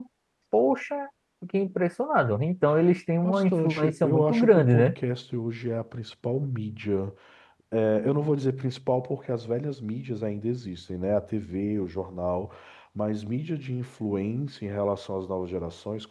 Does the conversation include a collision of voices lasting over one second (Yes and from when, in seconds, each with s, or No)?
Yes, from 3.2 s